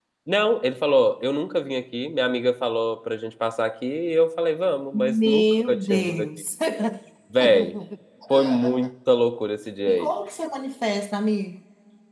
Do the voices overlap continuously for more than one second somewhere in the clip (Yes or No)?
Yes